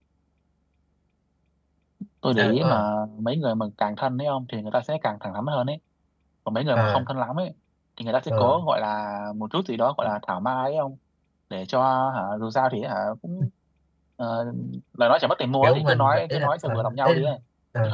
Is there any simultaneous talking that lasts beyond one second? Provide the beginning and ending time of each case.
15.6-17.1

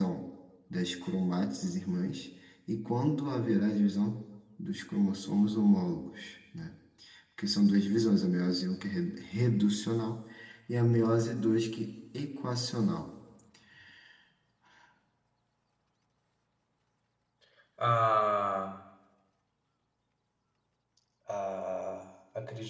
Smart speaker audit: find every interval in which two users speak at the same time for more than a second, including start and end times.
none

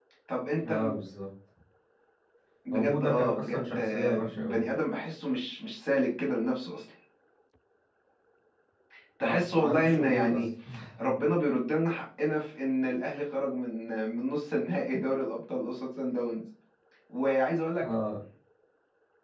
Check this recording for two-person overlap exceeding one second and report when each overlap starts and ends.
2.7-4.6, 9.2-10.4

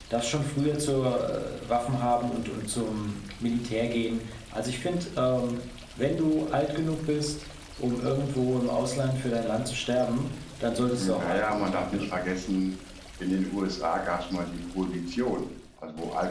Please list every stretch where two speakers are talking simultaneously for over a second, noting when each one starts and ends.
10.9-12.2

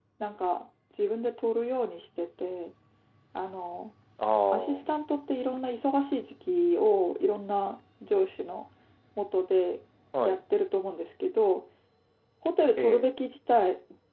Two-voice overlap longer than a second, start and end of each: none

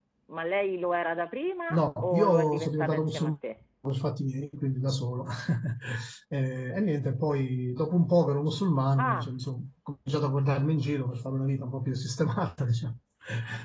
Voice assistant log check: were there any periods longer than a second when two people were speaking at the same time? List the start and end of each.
1.7-3.3

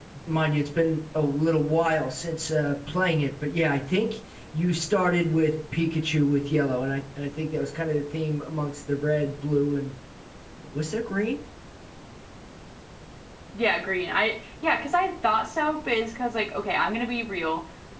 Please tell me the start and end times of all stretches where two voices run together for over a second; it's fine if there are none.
none

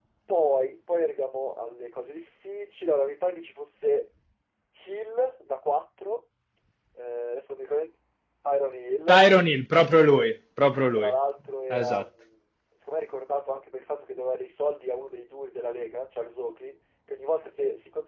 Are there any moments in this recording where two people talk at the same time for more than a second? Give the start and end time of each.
none

